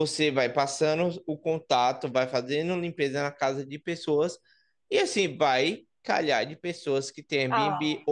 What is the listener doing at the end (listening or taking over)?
listening